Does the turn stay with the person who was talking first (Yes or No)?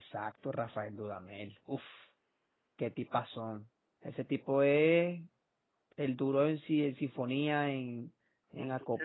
Yes